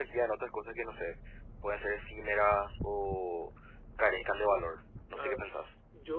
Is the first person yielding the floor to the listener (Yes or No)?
Yes